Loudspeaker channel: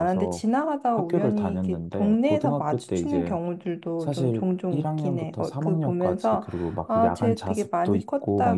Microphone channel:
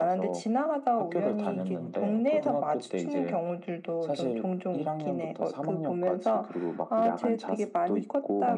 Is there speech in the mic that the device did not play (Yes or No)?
Yes